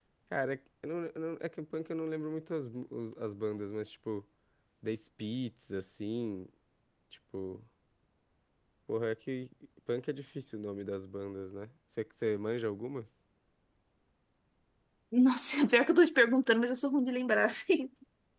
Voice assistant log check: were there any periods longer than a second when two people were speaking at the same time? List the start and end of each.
none

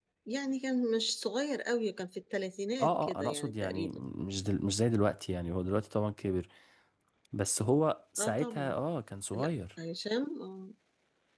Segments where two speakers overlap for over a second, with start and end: 2.8-4.0

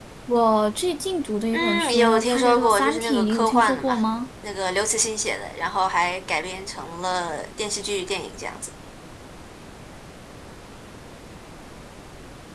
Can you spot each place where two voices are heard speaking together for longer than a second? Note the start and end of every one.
1.5-4.0

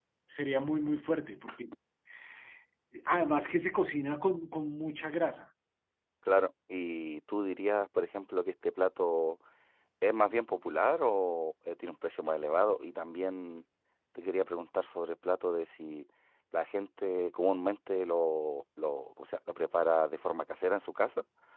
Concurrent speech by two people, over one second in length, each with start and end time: none

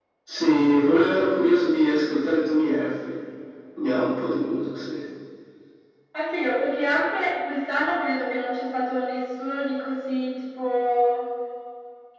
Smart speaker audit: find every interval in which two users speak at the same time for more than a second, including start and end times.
none

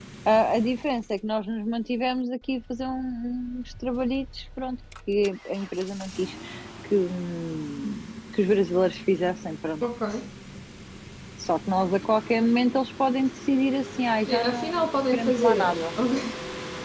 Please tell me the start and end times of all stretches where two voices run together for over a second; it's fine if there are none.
14.2-15.9

